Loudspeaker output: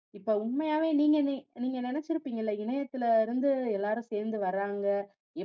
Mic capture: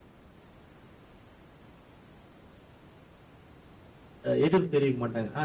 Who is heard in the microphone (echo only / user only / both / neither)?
user only